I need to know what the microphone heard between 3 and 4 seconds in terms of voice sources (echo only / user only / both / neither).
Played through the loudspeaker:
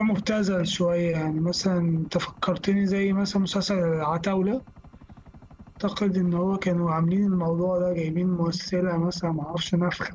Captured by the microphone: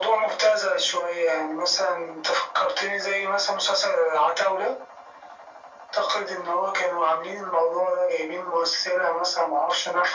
echo only